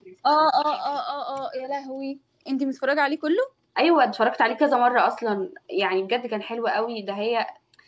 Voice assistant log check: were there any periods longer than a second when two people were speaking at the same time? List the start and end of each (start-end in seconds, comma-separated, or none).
none